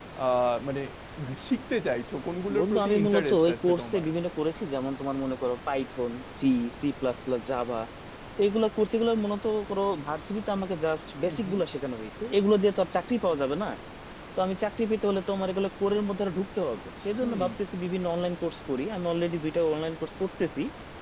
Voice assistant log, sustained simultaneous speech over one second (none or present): present